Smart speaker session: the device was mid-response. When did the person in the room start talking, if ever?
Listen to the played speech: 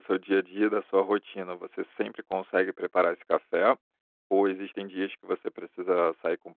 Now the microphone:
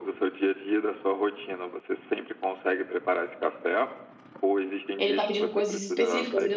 5 s

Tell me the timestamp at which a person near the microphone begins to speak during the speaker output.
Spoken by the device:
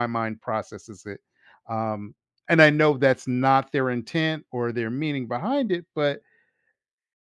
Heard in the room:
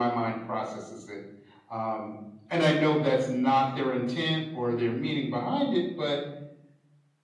none

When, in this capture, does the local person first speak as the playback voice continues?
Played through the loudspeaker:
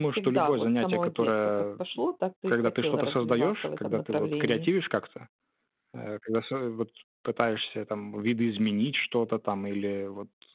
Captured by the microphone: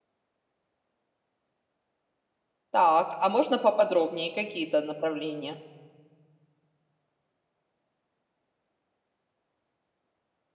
3 s

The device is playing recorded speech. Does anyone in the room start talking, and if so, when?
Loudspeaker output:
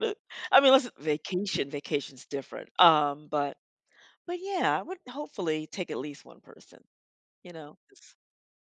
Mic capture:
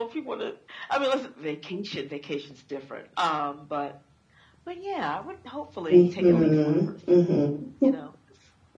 6 s

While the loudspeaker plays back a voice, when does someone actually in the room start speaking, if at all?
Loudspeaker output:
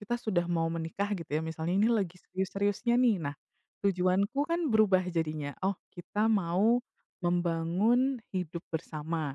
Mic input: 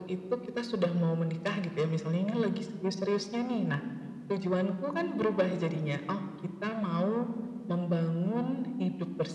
none

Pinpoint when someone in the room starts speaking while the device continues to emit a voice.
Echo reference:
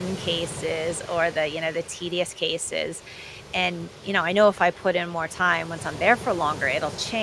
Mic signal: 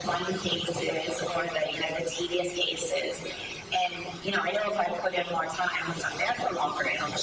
none

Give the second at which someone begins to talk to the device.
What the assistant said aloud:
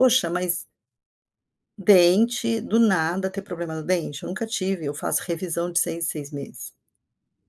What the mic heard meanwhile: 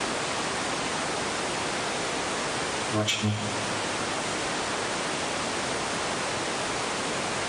3 s

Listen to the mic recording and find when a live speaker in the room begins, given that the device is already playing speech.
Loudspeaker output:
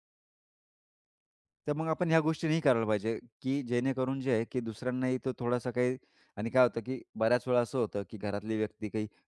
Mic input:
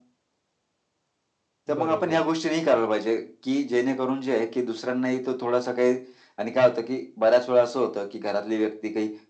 2 s

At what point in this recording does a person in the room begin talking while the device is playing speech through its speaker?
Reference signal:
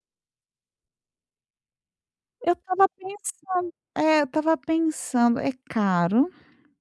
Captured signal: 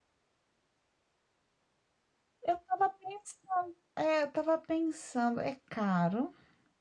none

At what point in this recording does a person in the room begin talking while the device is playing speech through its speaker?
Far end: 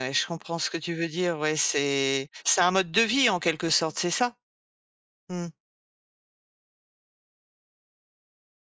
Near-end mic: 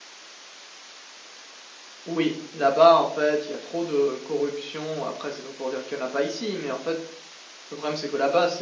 2 s

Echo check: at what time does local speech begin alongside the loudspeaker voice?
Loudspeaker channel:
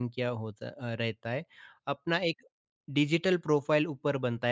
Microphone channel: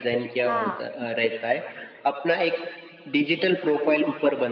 0 s

